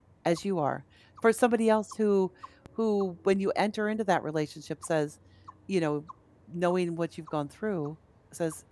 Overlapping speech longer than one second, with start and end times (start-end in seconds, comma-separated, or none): none